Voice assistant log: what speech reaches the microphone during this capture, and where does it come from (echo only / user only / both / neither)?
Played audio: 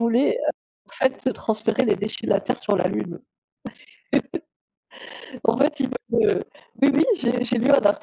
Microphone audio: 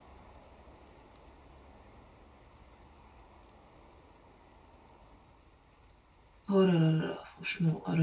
user only